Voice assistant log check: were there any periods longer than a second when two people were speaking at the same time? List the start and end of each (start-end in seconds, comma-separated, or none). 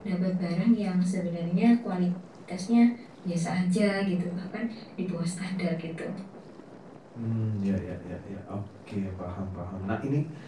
none